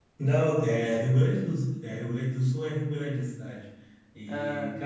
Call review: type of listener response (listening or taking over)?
listening